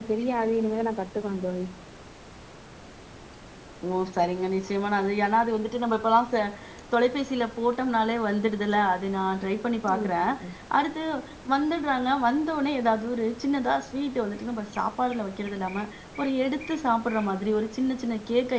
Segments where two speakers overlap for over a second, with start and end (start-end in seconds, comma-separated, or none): none